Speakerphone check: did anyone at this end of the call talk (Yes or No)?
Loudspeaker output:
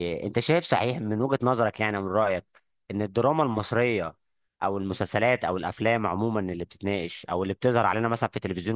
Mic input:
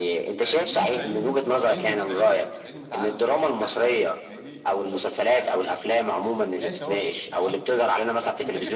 Yes